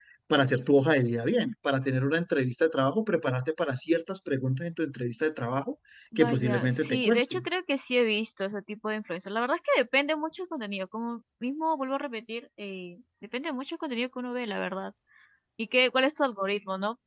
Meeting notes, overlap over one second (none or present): present